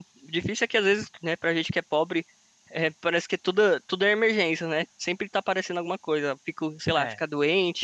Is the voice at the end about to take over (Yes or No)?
No